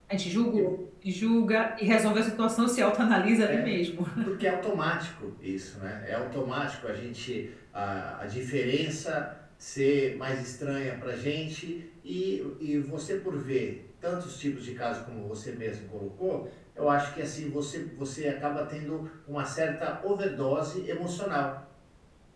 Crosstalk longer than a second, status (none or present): none